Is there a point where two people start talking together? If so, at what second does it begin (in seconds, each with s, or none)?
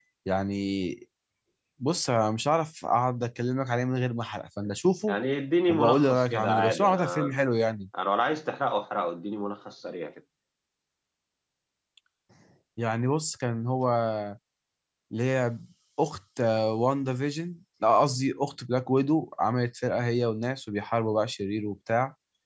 5.7 s